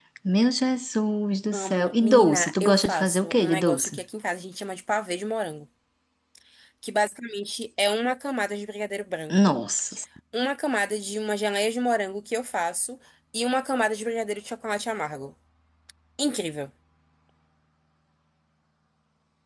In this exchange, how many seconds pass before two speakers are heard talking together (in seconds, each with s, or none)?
1.5 s